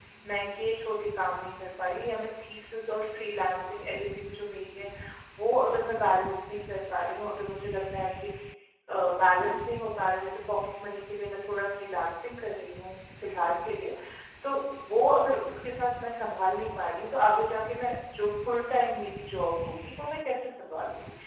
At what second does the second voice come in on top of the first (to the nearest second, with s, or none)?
none